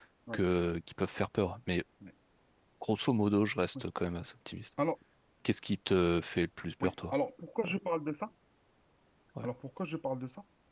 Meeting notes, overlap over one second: none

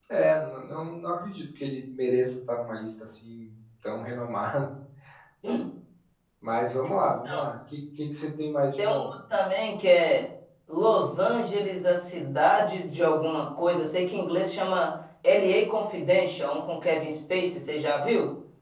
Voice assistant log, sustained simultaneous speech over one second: none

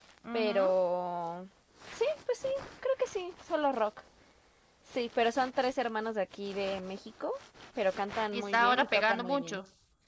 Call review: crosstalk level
present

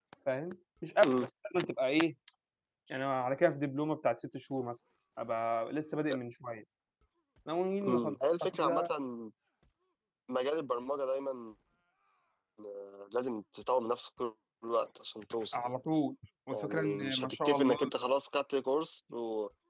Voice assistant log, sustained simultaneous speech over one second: present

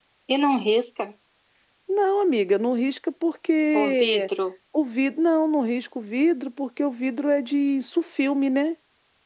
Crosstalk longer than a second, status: none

